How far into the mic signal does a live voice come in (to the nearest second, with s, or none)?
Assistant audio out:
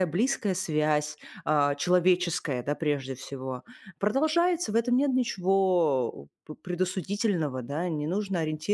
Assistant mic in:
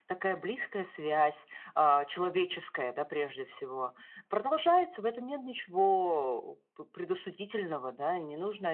none